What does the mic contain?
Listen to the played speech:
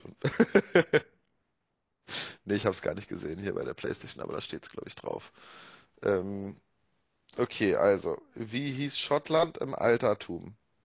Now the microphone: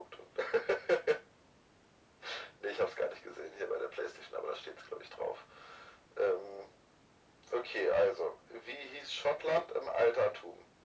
echo only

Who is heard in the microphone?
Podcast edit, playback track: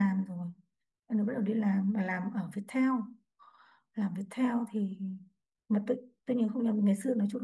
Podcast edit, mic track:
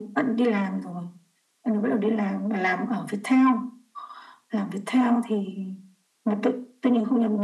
echo only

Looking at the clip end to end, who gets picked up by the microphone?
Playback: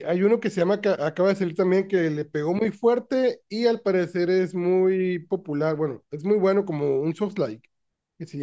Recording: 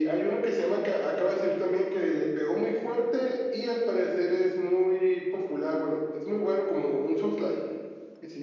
echo only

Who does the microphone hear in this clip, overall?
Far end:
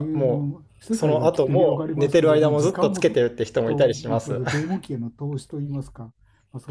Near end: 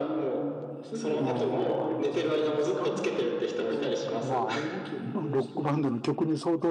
both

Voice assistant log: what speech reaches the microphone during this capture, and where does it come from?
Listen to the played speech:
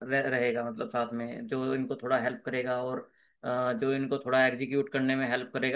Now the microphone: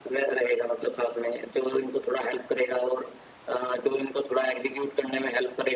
echo only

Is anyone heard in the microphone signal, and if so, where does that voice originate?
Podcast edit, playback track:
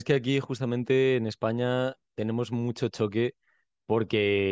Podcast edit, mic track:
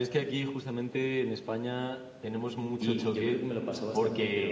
both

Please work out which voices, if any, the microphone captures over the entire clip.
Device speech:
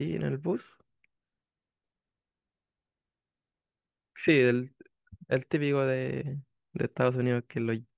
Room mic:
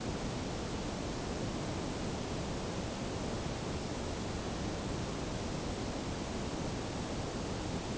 neither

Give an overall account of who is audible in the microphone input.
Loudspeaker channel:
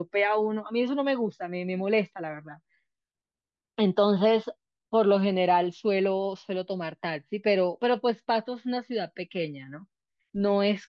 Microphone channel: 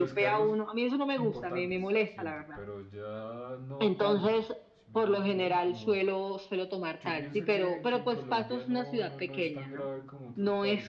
both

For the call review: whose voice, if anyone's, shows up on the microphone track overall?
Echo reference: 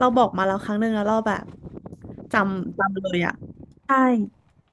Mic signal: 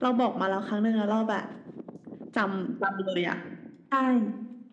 echo only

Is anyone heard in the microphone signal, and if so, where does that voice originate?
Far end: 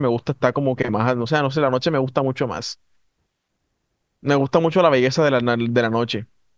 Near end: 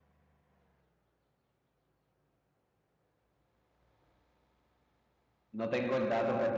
user only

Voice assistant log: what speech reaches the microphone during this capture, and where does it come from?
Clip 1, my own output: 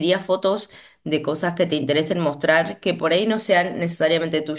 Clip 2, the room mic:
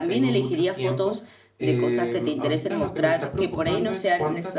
both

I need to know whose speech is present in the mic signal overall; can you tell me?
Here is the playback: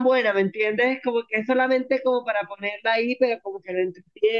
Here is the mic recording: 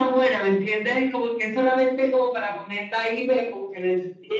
echo only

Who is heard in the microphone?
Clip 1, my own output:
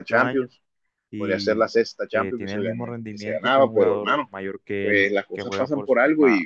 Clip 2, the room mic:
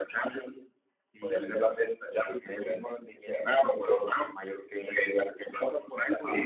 echo only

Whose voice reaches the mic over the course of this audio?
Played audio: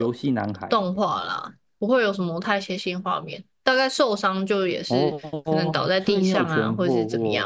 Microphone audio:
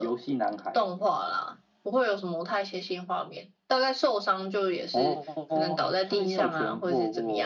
echo only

